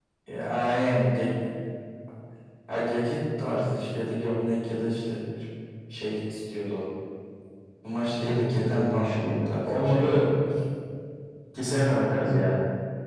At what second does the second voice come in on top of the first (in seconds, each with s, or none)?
8.2 s